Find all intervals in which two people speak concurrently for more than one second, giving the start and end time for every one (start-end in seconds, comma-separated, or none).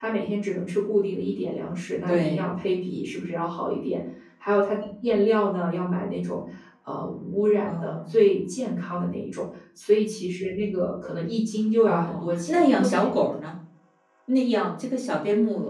11.8-13.3